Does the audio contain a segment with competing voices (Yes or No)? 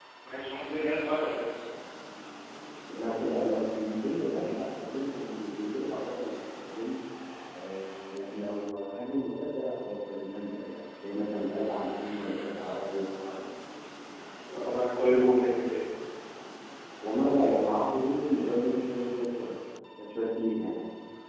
No